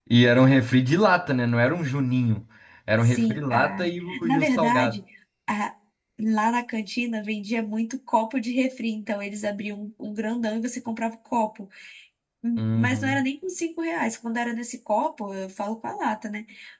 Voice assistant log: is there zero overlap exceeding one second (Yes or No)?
No